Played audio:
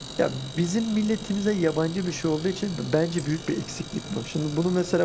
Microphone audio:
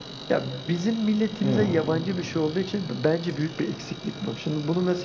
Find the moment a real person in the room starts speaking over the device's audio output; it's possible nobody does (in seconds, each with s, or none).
1.4 s